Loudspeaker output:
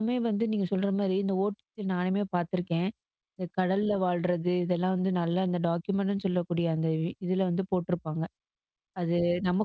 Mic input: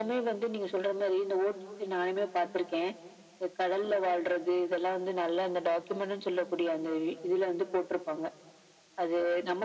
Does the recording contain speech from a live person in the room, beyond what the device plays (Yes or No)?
No